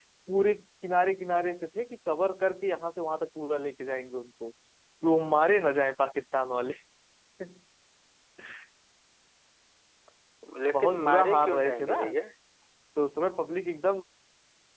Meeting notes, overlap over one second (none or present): present